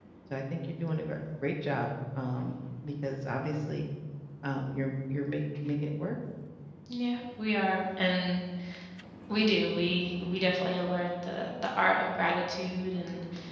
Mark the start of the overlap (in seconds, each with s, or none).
none